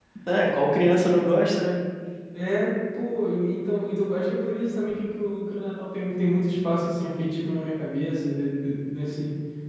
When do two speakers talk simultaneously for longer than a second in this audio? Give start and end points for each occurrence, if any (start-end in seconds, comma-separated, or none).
none